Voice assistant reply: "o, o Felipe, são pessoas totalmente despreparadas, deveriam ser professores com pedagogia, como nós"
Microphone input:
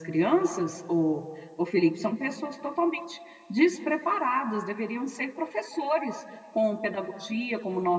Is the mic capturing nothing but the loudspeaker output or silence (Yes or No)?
Yes